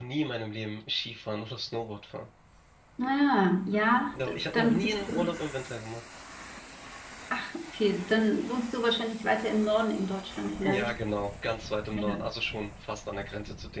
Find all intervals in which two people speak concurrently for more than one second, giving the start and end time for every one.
4.1-5.4

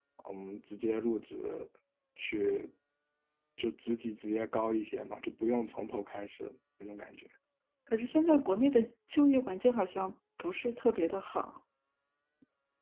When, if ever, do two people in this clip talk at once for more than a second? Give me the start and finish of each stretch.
none

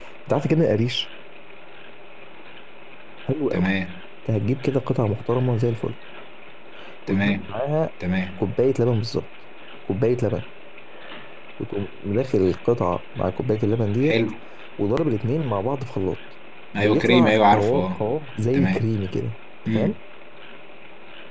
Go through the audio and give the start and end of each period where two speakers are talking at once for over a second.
16.8-18.0

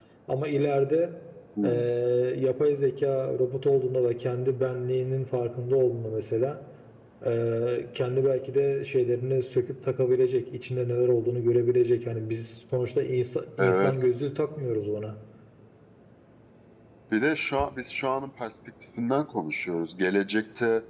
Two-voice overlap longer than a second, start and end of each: none

